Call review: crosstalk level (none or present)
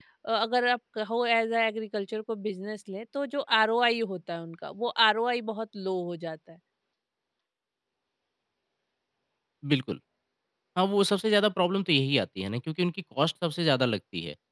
none